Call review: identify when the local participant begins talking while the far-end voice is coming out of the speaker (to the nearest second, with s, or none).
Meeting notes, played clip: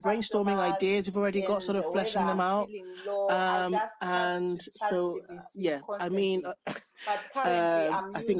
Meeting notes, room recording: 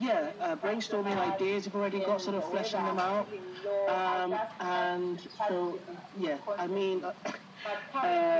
none